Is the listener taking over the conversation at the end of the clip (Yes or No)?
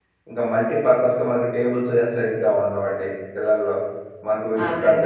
No